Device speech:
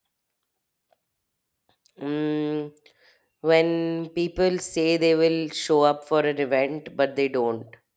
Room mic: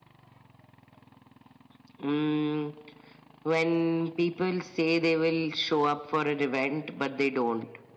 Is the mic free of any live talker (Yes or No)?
Yes